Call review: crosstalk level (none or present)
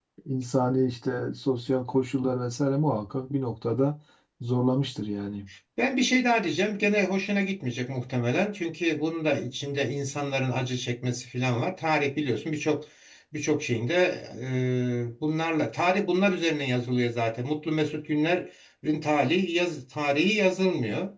none